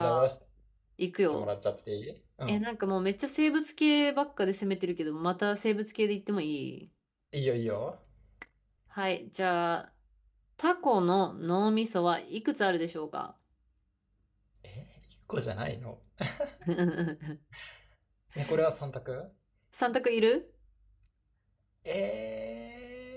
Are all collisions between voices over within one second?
Yes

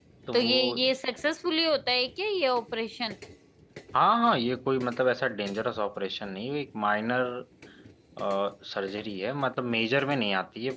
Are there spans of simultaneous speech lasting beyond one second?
No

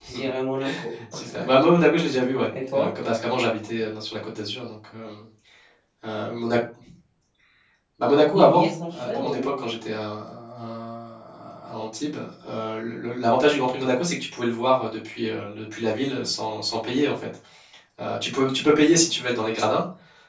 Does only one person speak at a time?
No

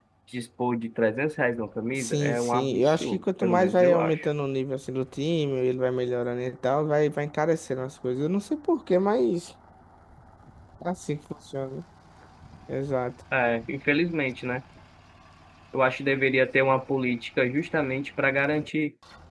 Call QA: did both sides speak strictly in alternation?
No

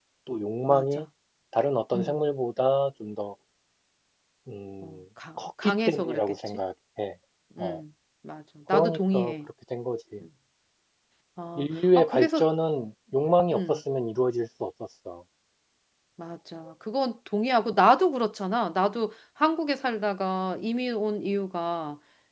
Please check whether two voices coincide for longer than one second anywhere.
Yes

